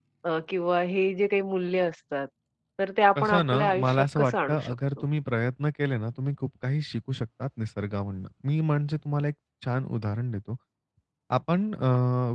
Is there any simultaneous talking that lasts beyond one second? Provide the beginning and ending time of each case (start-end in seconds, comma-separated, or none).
3.1-4.8